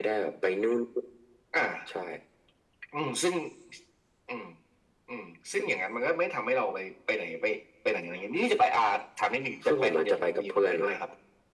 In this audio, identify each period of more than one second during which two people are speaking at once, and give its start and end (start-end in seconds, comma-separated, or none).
9.6-11.0